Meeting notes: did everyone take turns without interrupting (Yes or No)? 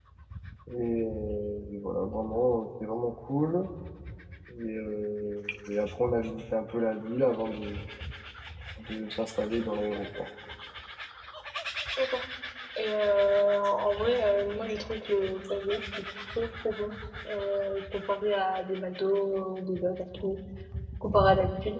Yes